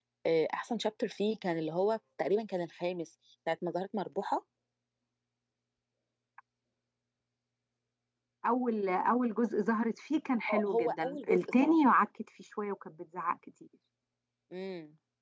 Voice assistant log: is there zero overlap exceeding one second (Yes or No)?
No